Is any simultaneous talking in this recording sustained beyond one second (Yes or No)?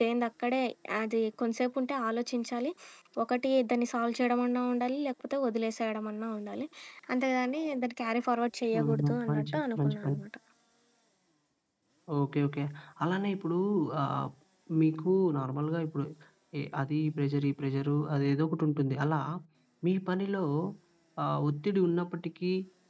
Yes